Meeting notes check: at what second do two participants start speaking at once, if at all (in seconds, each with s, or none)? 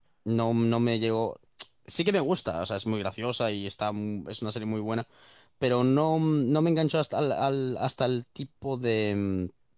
none